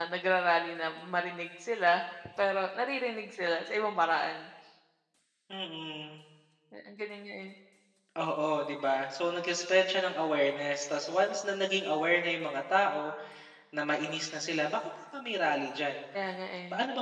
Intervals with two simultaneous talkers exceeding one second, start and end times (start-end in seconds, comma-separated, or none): none